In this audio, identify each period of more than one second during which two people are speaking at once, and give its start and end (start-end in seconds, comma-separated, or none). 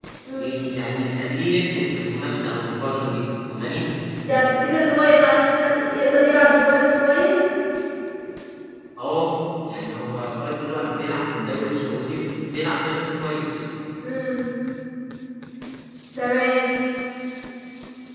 none